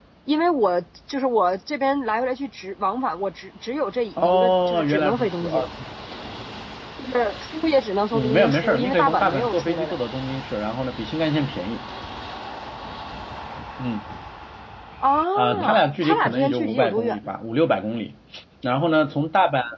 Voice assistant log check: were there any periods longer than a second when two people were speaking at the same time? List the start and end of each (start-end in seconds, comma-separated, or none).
4.2-5.5, 8.1-10.0, 15.3-17.3